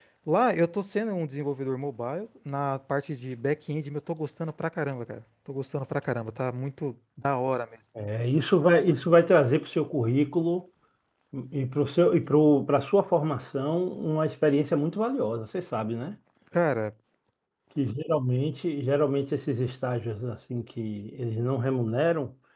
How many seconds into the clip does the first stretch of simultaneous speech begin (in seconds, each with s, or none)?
none